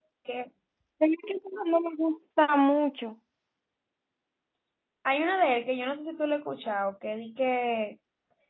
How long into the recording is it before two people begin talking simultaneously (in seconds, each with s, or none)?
none